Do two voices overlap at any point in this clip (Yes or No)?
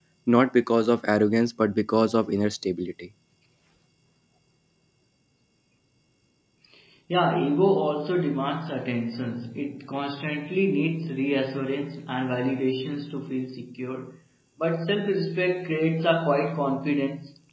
No